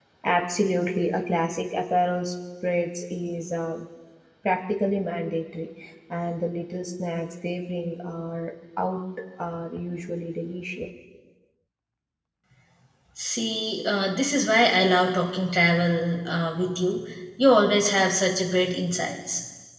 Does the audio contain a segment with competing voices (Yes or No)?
No